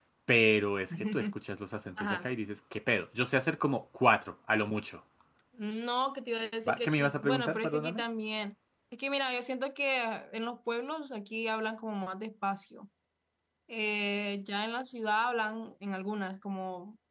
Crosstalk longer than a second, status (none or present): present